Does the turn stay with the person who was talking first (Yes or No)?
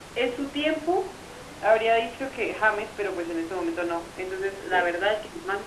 Yes